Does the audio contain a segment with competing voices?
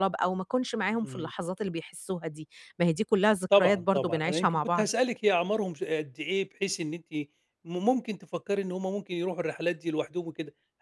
Yes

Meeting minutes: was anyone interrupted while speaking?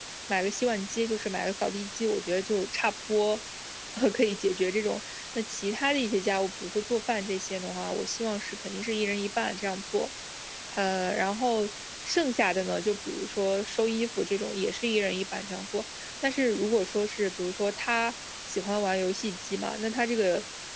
No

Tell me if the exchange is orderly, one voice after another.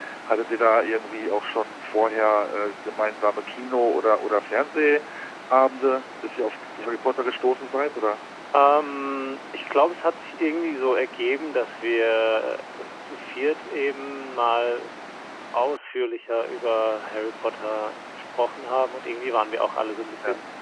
Yes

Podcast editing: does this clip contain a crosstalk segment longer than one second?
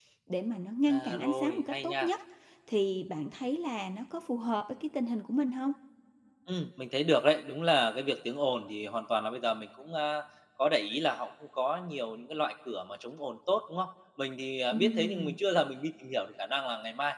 Yes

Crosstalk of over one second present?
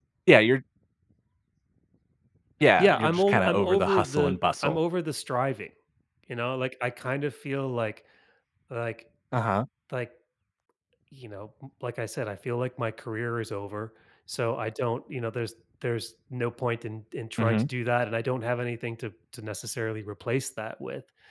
Yes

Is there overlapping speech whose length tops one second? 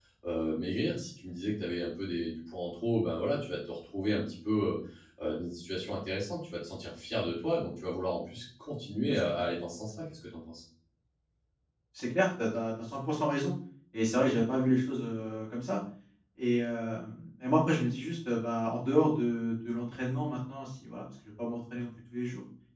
No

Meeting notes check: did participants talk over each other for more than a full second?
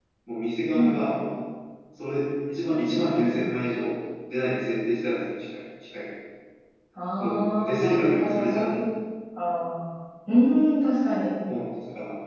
Yes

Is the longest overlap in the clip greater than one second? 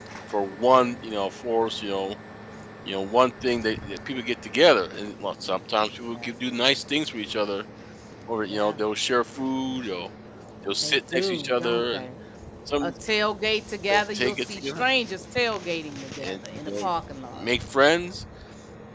Yes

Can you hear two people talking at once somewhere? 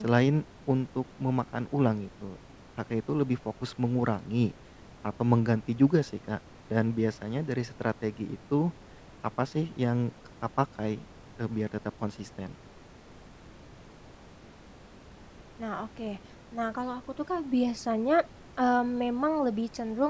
No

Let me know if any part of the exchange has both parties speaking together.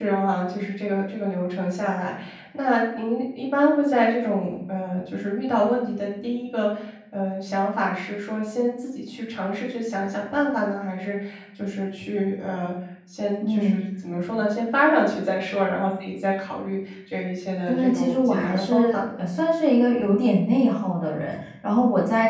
Yes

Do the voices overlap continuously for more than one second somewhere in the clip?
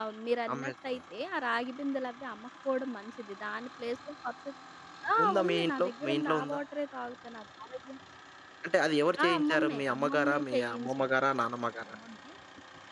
Yes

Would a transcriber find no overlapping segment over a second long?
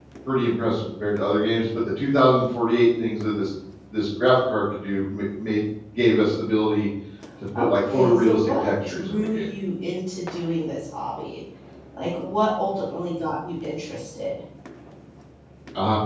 No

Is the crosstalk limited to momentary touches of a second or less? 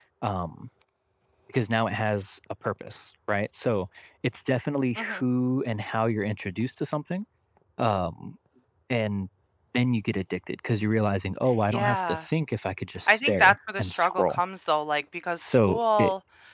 No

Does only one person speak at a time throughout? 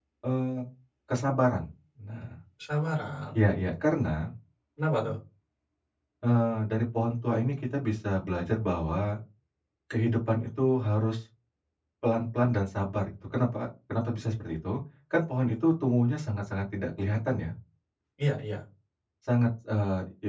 Yes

